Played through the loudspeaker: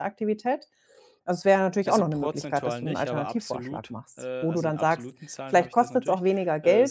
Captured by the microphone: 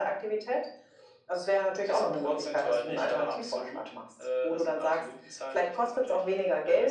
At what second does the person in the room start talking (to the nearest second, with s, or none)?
none